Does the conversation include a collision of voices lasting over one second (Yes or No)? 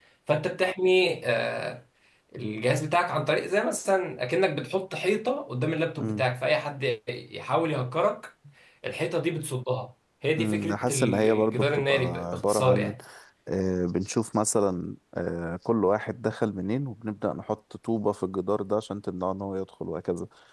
Yes